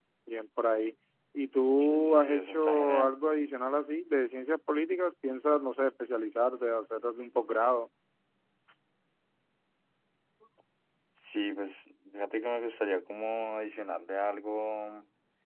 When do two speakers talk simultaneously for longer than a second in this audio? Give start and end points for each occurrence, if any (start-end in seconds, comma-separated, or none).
1.8-3.1